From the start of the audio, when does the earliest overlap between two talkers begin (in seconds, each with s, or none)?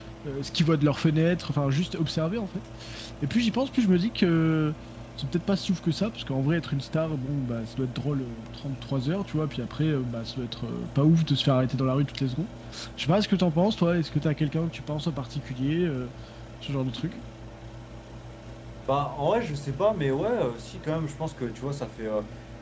none